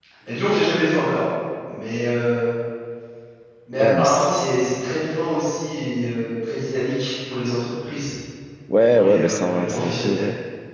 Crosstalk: present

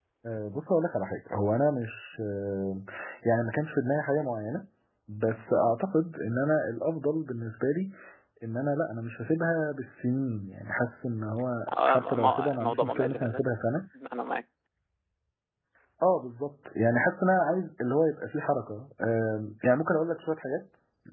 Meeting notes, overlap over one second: present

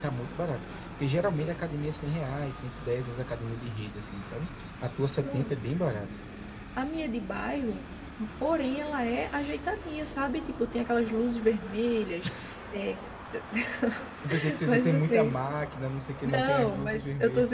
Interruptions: present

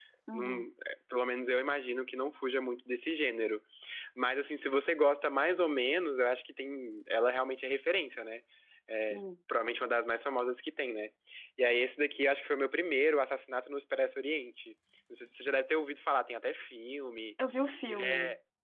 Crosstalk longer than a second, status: none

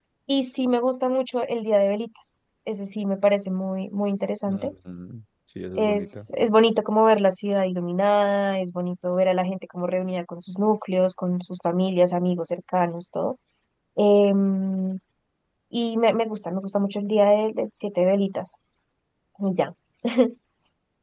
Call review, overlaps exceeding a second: none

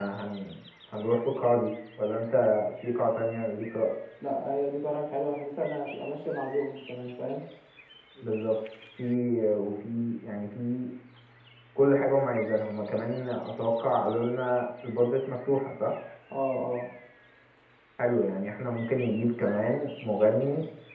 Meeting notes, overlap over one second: none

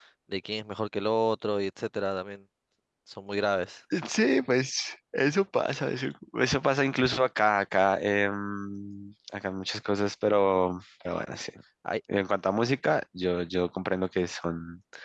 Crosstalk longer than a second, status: none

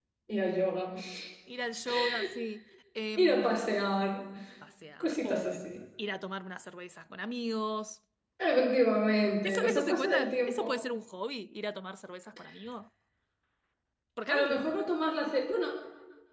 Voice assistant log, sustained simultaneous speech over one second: present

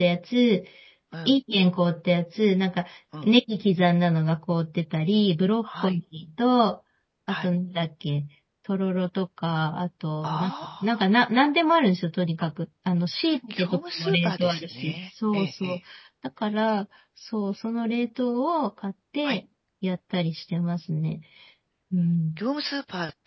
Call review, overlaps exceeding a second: present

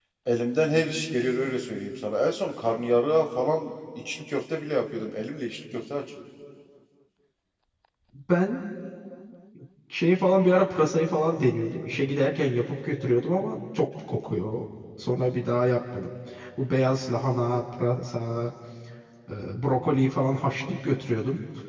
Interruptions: none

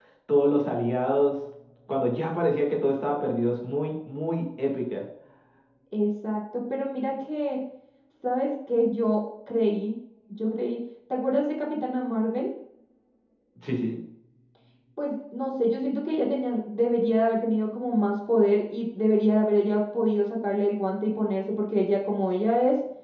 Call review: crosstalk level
none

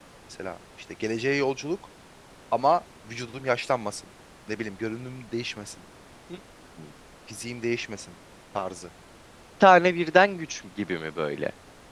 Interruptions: none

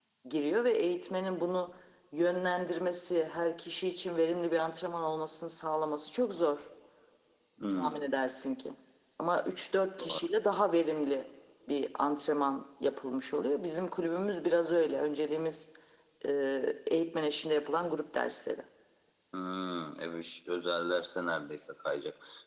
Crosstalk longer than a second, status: none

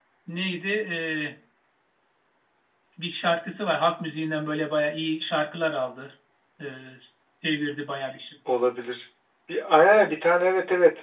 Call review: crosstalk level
none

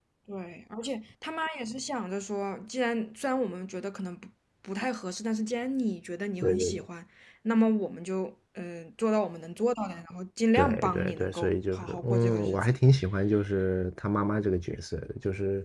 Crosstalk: present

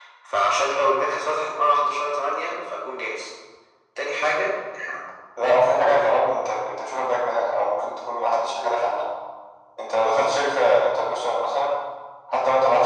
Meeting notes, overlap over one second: none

